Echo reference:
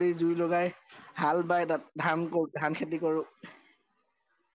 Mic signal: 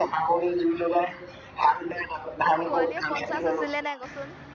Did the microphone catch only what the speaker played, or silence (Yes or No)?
No